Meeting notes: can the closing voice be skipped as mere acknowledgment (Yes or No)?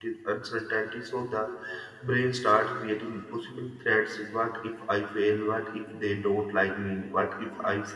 Yes